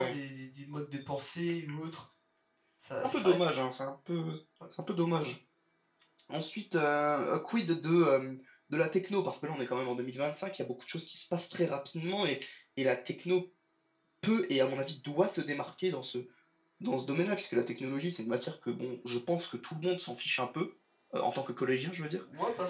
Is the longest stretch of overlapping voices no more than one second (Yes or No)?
Yes